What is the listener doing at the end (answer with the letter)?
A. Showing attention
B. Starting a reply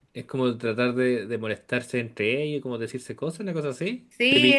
B